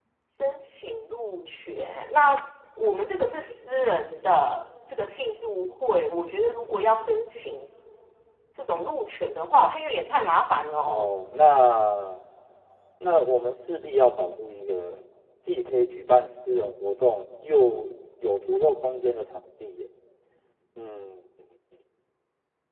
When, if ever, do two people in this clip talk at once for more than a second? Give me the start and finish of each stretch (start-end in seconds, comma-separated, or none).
none